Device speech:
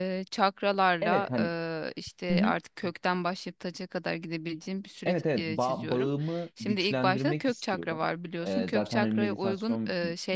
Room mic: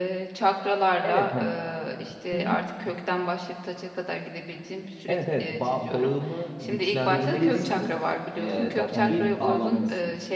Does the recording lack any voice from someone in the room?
No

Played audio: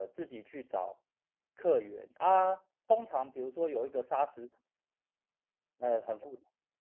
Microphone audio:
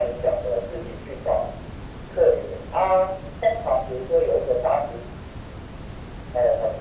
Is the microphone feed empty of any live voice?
Yes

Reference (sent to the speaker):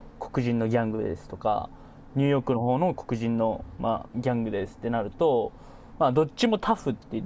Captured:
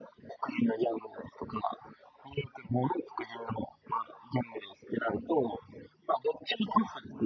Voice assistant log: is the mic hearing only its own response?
Yes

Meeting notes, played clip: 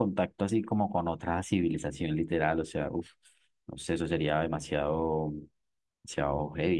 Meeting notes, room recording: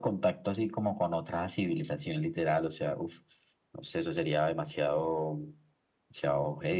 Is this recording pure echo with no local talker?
Yes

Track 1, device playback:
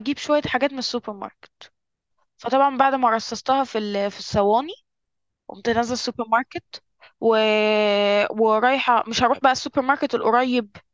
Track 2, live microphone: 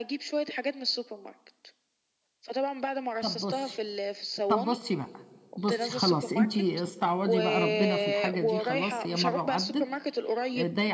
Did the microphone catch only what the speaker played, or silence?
No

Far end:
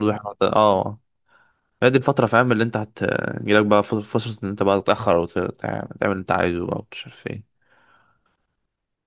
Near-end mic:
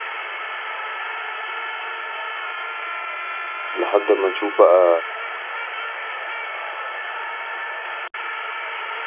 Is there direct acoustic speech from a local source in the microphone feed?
Yes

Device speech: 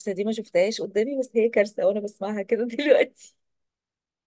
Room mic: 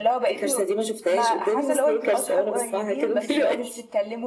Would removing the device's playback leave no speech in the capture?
No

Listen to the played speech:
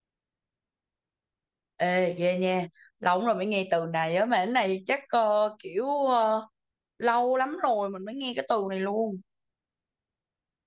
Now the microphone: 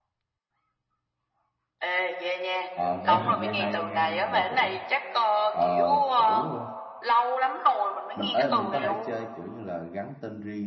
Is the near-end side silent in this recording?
No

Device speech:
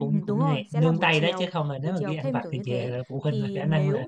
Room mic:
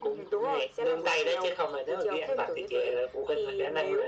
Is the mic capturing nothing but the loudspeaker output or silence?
Yes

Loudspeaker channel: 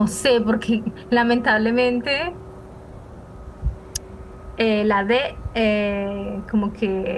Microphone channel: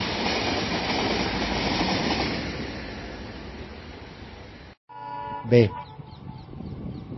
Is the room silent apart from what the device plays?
No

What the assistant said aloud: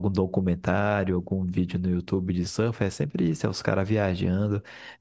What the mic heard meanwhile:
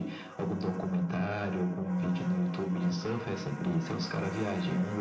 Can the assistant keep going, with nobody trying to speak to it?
Yes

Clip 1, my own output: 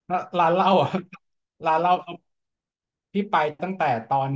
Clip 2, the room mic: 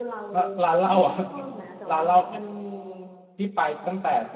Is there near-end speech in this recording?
Yes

